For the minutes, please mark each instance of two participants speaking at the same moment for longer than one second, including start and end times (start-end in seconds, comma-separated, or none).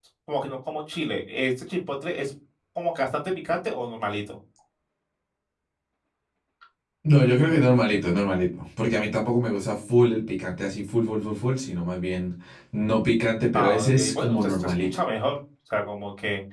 13.5-15.0